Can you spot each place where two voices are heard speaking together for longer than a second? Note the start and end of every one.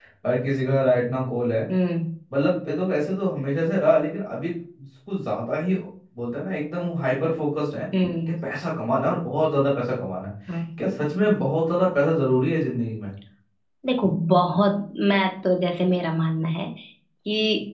none

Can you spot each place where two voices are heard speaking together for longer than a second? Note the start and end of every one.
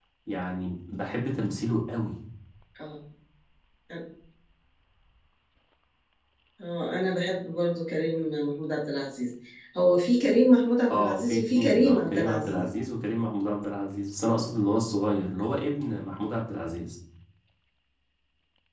10.9-12.7

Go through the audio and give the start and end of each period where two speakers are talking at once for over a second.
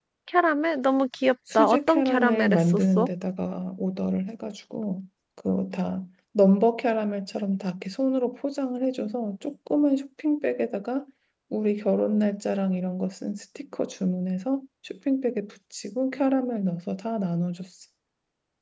1.6-3.1

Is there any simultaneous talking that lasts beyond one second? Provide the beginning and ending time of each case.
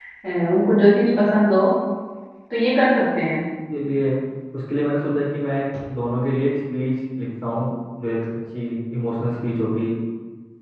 none

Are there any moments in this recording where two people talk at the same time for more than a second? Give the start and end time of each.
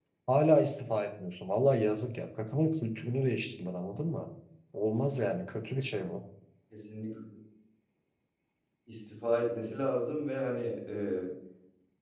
none

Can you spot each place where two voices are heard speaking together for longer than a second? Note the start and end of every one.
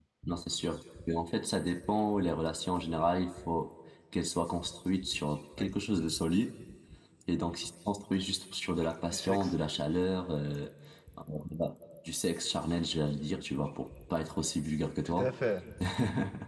none

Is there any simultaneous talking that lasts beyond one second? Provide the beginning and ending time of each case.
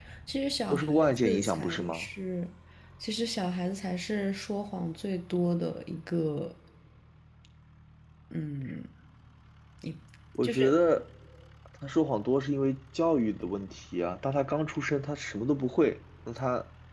0.7-2.1

